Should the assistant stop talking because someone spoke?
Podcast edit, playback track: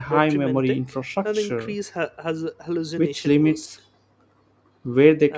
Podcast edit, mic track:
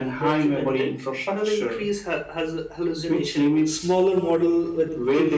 Yes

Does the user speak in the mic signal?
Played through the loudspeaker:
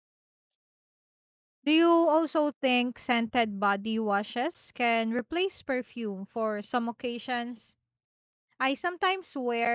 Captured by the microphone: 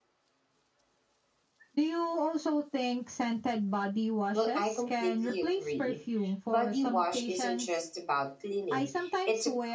Yes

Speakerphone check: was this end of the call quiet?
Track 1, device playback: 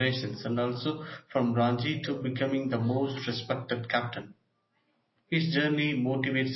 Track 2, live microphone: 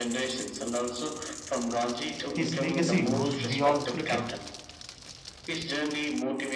No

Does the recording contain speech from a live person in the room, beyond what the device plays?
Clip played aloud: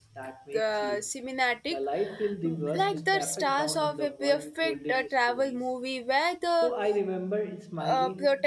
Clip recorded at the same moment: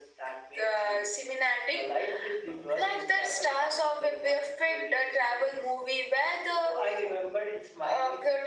No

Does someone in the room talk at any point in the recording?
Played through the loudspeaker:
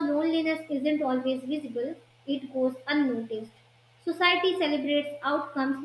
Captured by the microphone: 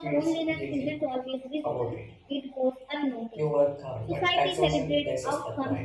Yes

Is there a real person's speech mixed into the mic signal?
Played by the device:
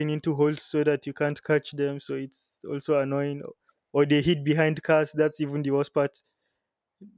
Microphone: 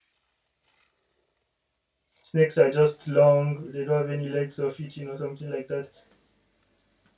Yes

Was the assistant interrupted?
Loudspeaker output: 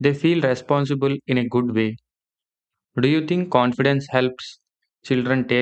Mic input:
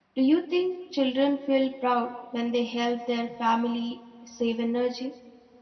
Yes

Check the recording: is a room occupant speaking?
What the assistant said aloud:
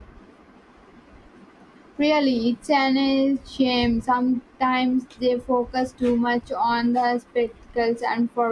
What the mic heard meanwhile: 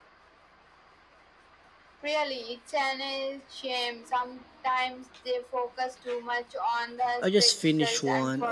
Yes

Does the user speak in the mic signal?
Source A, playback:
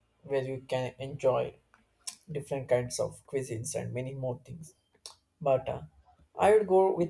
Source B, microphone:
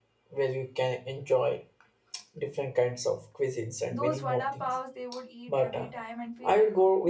Yes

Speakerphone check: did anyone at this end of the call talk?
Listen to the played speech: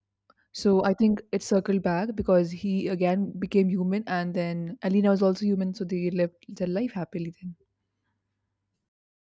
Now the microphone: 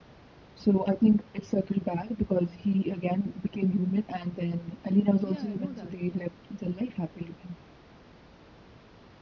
Yes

